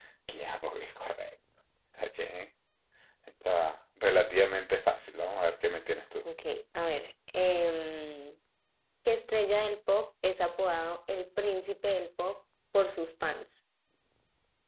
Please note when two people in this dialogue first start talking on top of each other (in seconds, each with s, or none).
none